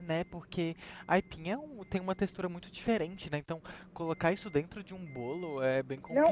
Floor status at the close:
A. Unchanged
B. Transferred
B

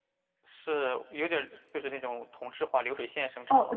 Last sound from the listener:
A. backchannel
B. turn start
B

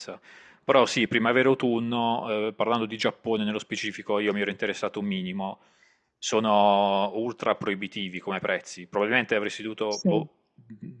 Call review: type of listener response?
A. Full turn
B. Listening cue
B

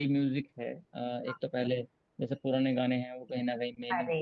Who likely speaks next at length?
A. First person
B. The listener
A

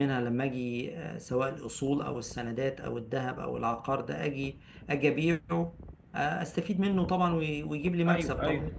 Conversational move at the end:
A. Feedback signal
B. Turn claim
B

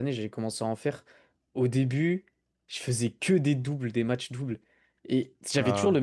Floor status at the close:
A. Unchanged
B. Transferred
A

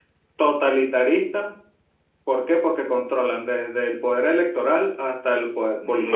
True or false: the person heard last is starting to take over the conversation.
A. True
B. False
A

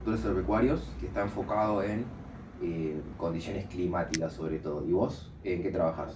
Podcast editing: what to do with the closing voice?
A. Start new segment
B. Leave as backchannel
A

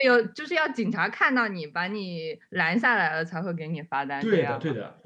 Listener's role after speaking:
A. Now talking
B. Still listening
A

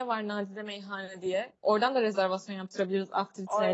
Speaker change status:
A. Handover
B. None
A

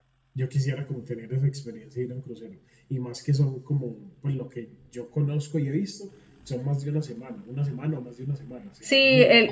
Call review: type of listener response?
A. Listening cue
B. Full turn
B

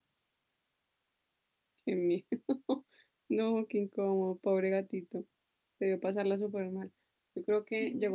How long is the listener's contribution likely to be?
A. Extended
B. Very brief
B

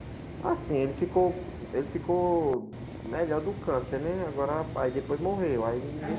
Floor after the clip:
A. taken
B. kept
A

